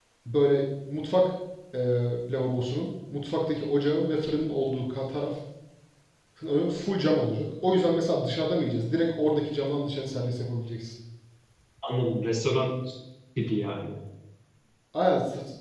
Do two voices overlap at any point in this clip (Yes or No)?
No